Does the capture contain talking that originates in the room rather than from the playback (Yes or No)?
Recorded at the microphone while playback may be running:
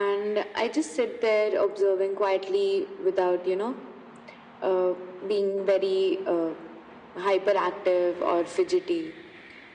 No